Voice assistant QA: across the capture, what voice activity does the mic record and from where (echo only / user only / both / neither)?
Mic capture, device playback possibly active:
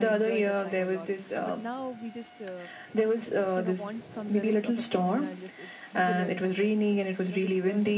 both